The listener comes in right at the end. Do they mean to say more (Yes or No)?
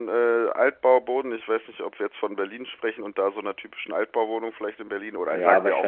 Yes